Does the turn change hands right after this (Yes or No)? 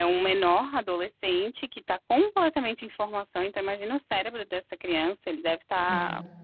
No